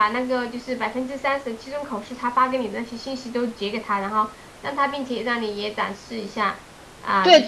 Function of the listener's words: taking over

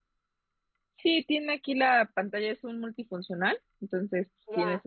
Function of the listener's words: taking over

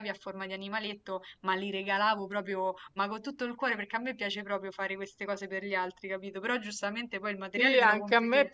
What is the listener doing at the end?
taking over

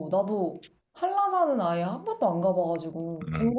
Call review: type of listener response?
taking over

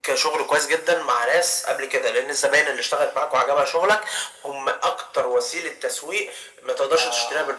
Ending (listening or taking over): taking over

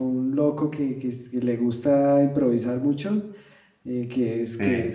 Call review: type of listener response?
listening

